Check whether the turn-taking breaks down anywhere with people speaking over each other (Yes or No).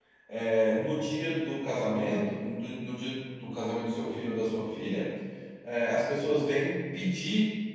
No